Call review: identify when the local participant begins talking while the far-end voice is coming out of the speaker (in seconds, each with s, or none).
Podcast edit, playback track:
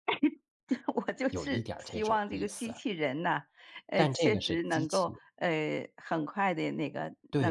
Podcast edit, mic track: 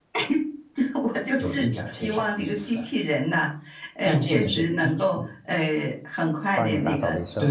6.6 s